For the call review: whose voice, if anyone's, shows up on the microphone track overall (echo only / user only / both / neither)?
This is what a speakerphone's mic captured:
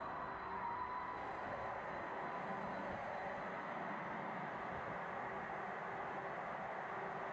neither